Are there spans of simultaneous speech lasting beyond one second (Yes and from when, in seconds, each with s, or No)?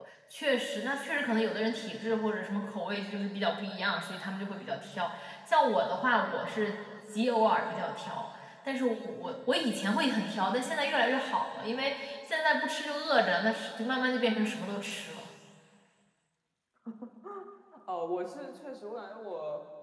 No